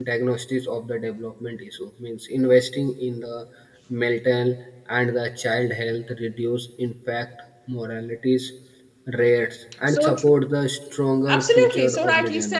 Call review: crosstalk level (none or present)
present